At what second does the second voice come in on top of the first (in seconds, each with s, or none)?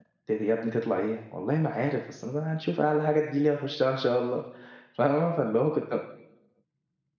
none